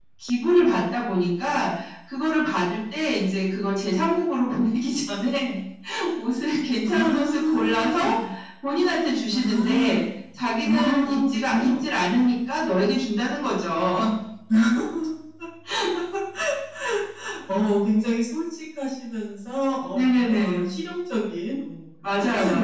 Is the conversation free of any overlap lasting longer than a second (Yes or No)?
No